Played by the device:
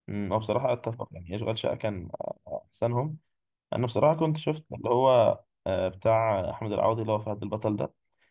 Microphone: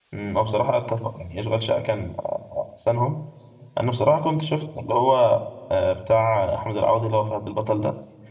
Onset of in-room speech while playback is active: none

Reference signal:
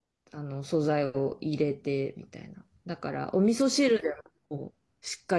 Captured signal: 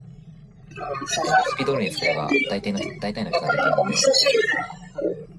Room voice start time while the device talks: 1.1 s

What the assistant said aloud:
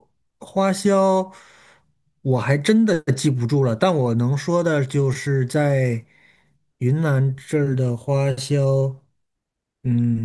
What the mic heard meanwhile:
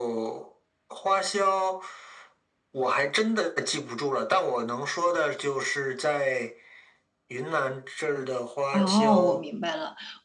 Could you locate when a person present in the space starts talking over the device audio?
8.7 s

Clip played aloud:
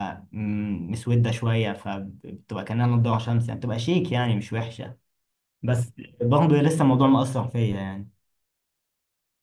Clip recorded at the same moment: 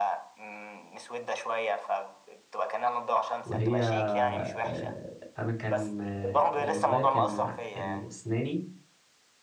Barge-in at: 3.4 s

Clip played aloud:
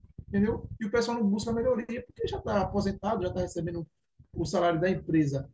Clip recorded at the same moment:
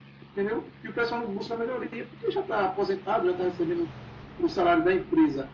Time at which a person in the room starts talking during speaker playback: none

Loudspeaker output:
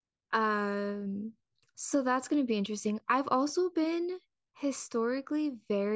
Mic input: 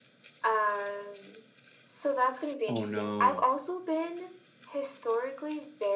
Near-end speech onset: 2.7 s

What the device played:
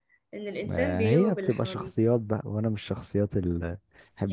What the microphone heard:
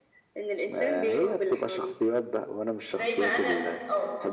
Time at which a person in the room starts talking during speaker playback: 2.9 s

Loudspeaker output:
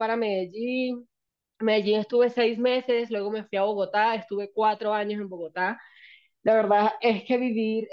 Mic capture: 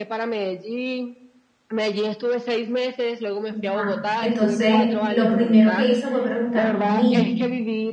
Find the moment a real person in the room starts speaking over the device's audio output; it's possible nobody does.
3.5 s

